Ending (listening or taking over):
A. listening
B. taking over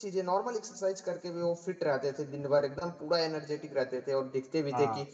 A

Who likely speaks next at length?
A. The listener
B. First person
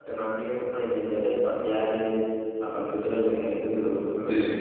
A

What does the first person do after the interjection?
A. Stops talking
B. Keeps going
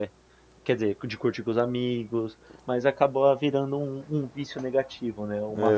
A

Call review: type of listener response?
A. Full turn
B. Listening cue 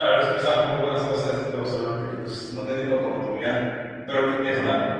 B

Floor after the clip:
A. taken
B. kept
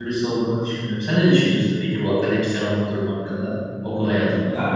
A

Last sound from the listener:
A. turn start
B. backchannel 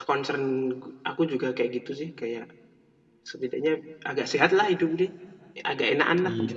A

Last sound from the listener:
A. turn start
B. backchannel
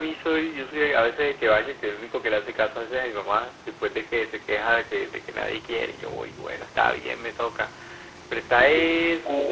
A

